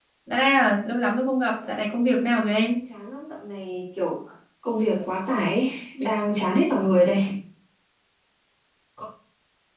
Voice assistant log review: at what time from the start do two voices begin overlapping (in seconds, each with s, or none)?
1.5 s